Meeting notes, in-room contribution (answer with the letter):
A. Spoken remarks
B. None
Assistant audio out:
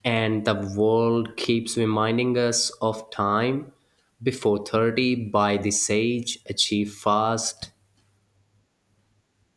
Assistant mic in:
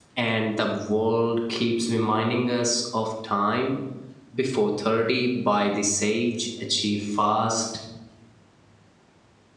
B